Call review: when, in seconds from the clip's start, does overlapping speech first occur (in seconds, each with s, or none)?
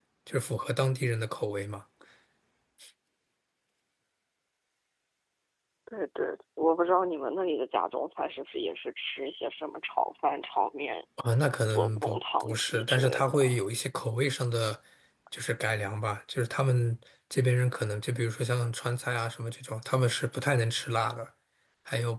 11.7 s